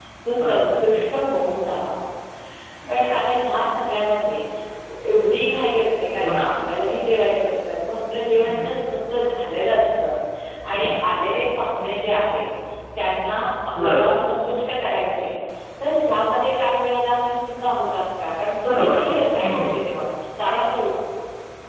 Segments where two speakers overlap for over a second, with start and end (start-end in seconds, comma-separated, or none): none